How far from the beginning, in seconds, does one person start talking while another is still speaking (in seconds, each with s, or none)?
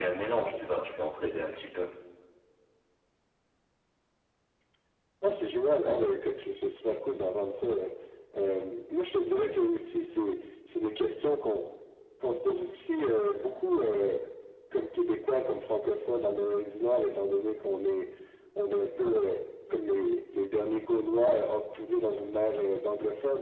none